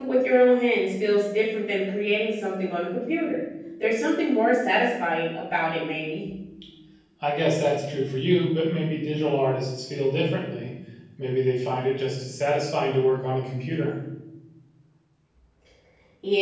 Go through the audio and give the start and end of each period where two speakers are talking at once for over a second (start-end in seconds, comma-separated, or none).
none